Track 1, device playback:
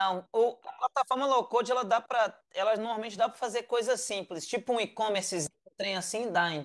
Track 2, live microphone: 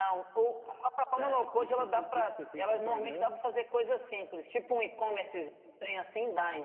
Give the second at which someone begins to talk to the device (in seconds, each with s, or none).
1.2 s